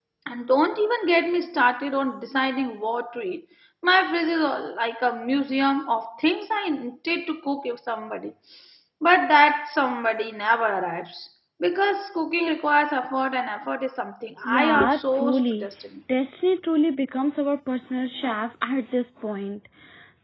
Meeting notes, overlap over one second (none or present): present